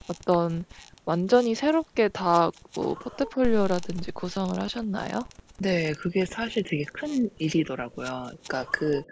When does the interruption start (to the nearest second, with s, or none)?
none